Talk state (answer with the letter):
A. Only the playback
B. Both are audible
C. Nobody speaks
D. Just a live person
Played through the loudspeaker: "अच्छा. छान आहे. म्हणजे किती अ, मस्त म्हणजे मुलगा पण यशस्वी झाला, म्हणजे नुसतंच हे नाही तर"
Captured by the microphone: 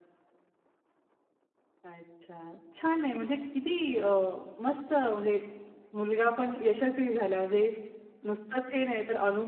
A